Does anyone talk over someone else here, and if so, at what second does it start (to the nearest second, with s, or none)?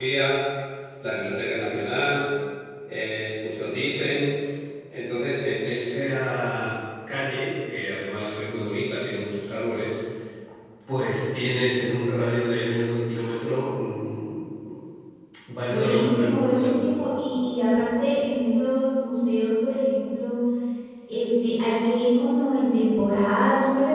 16 s